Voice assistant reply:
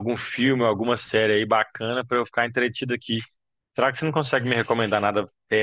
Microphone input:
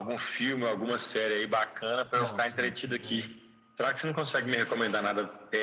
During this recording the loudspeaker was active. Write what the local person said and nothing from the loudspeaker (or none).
Não, sim, sim, é.